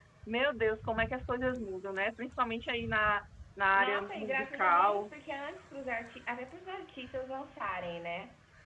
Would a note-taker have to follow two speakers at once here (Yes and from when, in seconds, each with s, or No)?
Yes, from 3.7 s